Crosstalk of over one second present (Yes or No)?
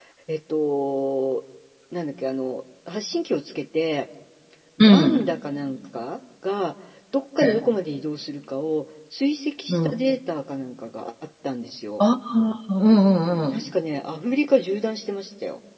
No